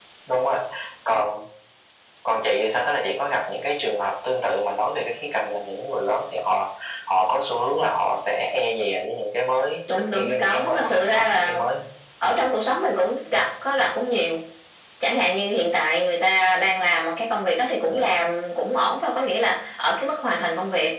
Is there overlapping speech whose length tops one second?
Yes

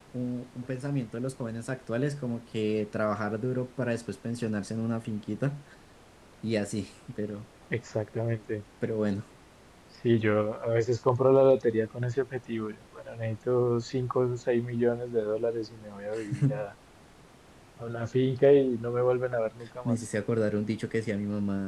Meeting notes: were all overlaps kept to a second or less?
Yes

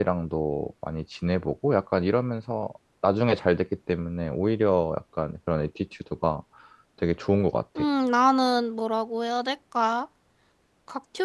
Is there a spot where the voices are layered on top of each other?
No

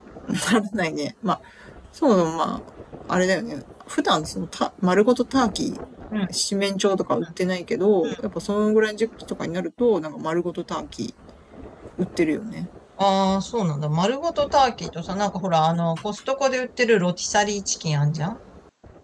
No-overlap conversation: Yes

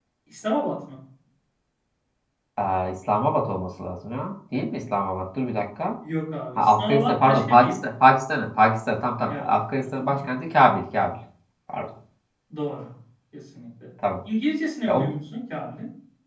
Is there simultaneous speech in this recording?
Yes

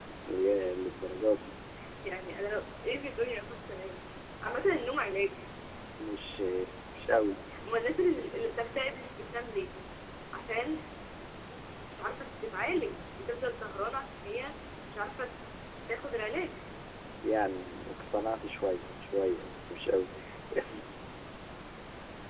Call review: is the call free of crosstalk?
Yes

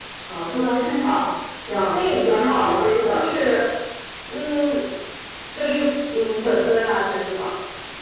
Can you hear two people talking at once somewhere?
Yes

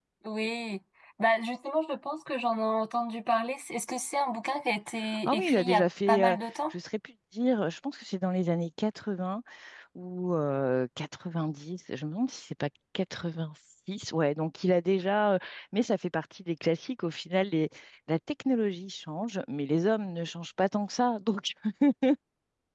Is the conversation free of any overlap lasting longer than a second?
No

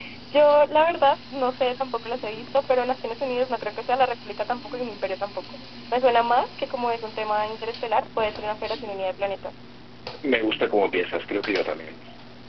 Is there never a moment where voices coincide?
Yes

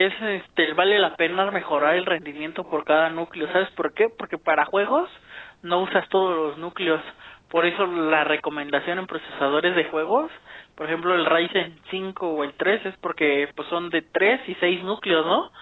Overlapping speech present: No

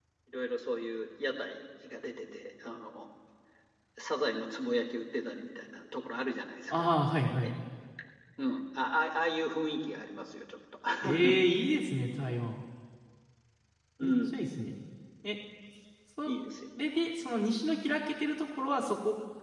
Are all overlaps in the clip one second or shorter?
Yes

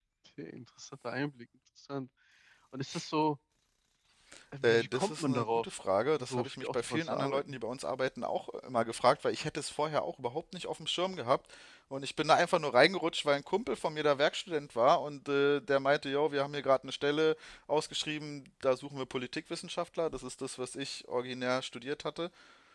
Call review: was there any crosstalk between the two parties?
Yes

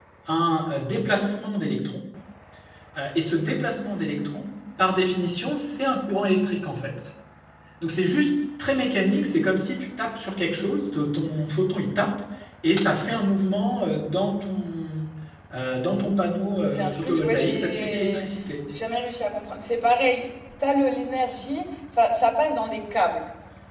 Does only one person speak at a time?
No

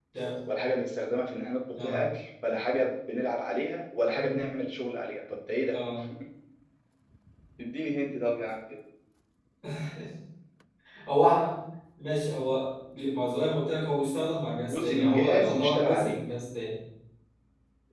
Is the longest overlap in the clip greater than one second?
Yes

